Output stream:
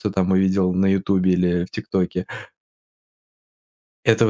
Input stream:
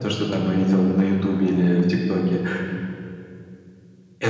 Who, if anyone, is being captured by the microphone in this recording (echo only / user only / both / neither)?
echo only